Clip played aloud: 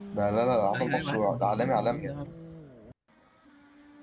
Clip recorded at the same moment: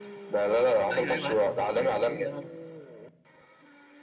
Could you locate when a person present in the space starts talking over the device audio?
none

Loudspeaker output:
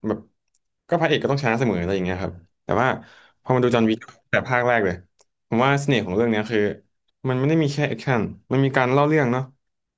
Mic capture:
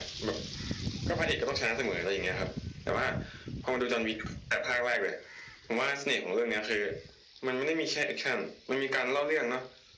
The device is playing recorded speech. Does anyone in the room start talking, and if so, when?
none

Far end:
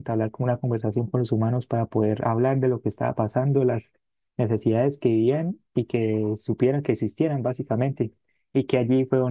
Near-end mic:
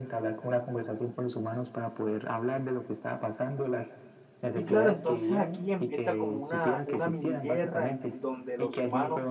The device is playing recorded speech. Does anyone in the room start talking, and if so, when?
5 s

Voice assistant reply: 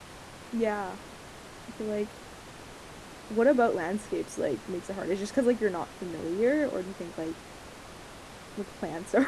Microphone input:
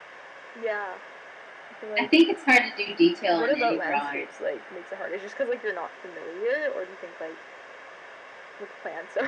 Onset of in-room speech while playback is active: 2 s

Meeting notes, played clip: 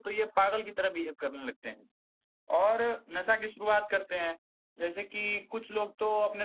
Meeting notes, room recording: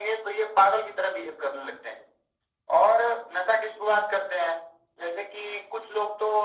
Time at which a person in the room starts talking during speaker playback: none

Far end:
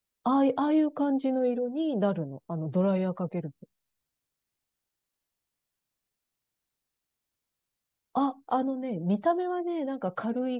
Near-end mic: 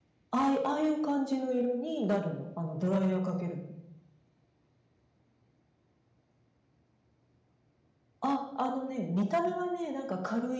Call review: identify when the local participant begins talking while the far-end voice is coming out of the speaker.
none

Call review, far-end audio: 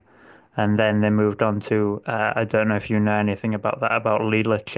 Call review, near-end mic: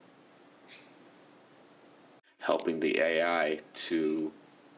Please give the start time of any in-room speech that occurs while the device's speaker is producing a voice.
2 s

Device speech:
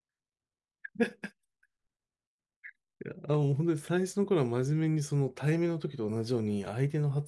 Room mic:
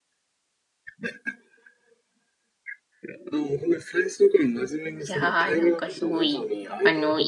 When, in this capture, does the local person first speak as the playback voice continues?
5 s

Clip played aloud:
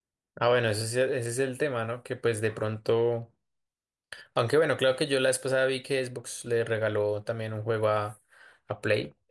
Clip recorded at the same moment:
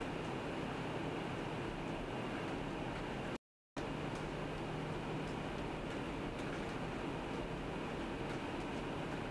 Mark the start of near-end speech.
none

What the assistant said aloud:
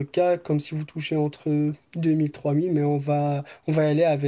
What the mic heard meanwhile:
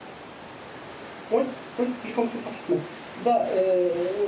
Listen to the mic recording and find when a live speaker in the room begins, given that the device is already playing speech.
1 s

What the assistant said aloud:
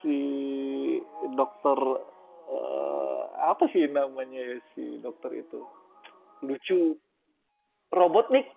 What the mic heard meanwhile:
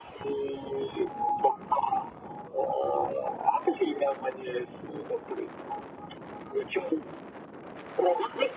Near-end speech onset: none

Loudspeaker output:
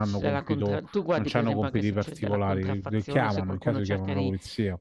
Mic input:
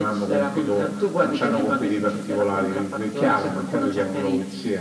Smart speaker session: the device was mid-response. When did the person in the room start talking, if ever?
none

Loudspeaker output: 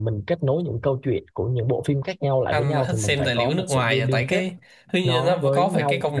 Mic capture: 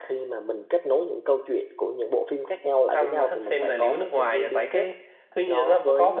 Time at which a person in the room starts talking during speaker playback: none

